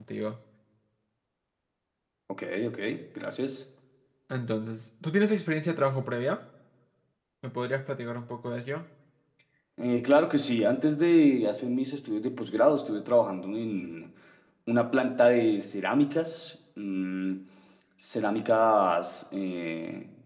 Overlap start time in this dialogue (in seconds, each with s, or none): none